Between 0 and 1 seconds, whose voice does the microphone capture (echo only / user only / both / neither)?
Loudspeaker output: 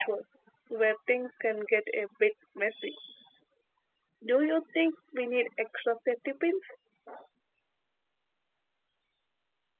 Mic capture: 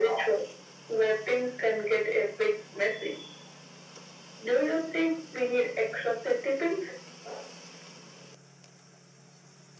echo only